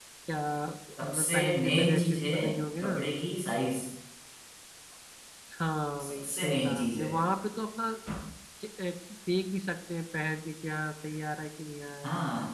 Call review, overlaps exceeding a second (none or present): present